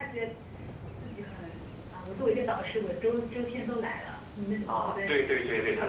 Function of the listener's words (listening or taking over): taking over